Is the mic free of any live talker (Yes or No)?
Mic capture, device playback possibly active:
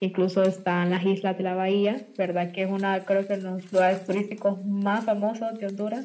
Yes